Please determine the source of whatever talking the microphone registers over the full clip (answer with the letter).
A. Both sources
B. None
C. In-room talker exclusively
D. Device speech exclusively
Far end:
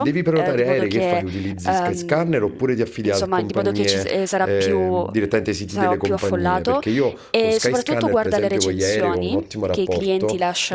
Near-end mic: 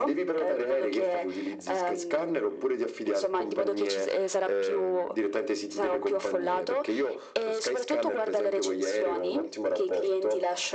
D